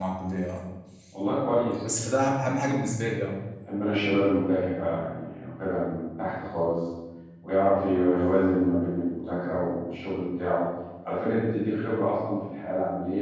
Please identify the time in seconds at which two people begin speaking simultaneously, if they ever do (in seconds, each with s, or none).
none